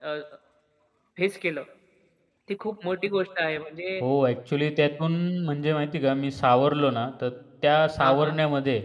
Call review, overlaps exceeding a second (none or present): none